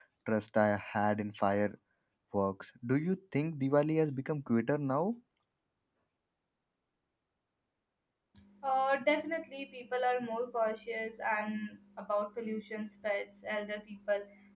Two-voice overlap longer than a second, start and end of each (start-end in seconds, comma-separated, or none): none